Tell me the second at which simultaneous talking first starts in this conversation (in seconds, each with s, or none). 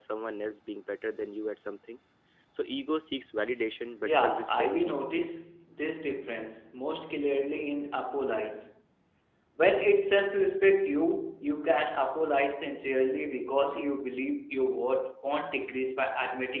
4.0 s